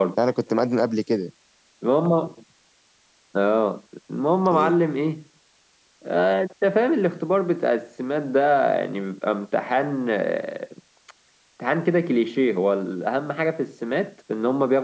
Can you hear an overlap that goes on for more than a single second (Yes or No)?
No